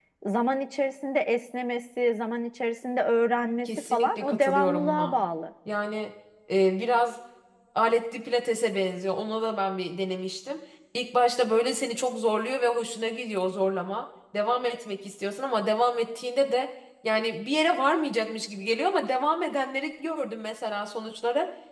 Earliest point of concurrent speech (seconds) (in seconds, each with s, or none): 3.6 s